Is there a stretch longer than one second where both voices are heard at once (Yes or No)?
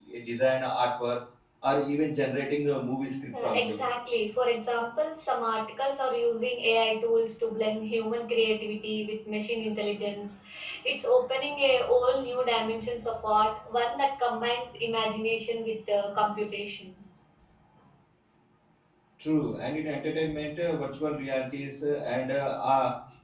No